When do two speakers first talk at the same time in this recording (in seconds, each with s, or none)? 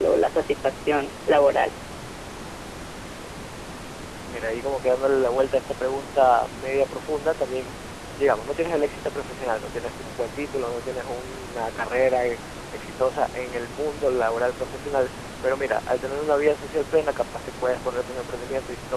none